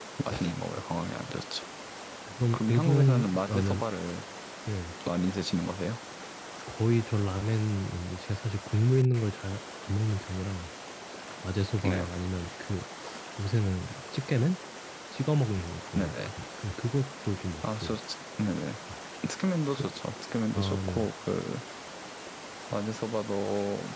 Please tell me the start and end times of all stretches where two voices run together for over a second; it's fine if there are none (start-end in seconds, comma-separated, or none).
2.5-3.8